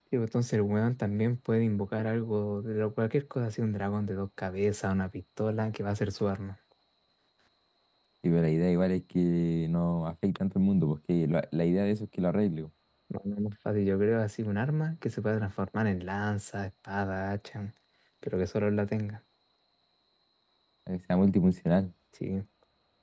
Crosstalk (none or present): none